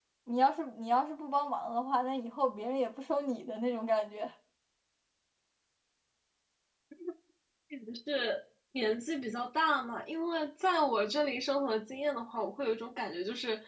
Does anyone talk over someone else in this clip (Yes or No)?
No